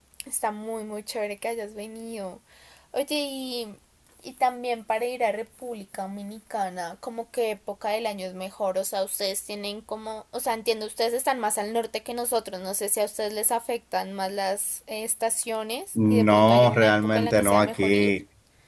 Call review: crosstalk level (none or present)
present